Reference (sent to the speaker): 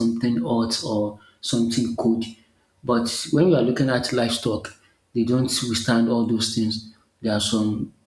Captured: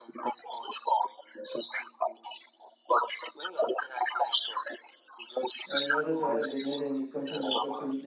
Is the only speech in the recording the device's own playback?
No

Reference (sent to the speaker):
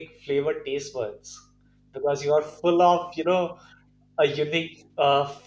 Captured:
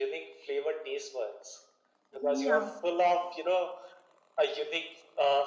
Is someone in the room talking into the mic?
Yes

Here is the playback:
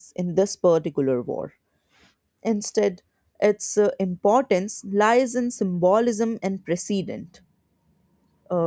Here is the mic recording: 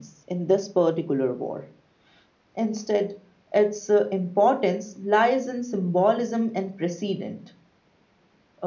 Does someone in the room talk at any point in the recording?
No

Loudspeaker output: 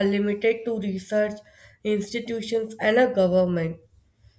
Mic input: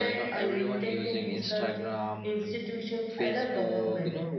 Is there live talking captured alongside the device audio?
Yes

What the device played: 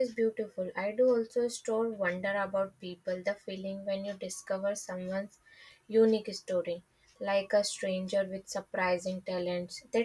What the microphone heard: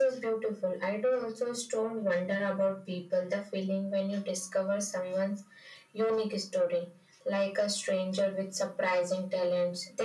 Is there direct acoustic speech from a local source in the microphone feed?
No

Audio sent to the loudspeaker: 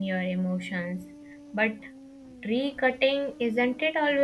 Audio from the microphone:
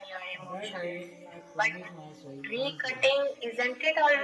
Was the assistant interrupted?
Yes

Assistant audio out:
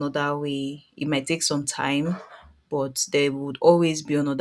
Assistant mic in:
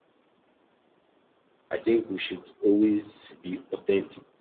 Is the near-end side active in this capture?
Yes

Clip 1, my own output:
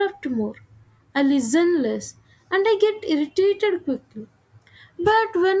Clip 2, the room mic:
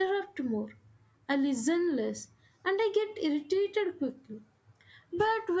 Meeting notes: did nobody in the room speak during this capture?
Yes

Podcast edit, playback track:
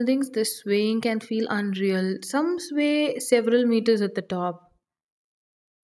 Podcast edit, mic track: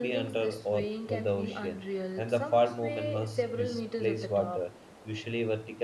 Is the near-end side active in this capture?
Yes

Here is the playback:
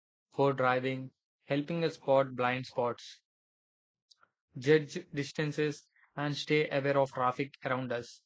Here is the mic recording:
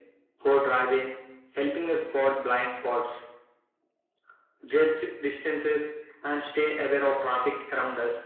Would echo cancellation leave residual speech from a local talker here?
No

